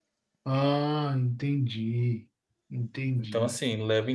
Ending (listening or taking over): taking over